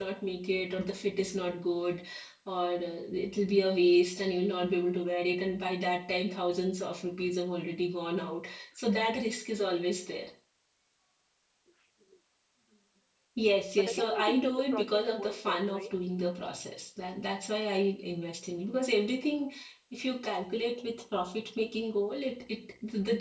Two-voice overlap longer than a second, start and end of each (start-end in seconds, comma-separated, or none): 13.7-15.9